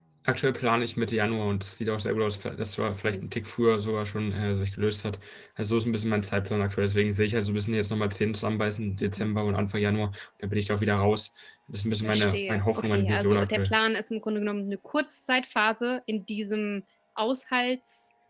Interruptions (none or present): present